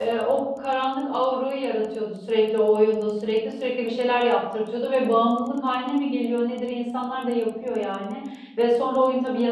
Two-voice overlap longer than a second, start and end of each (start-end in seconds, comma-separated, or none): none